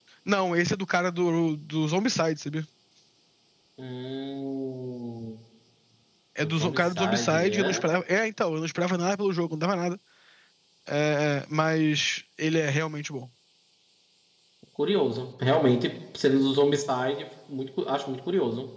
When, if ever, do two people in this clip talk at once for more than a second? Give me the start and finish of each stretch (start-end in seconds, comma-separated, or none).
6.4-7.8